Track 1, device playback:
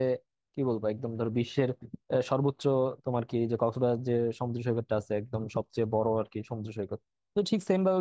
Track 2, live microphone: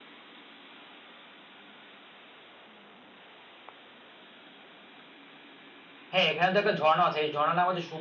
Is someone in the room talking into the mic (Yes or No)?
Yes